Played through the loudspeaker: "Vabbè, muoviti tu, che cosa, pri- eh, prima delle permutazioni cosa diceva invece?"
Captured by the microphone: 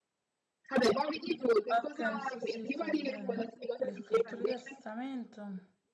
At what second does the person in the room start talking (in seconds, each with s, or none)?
1.7 s